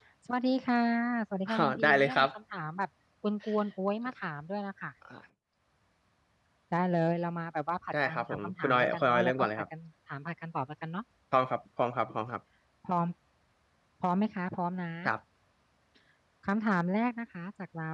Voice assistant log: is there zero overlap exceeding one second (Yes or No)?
No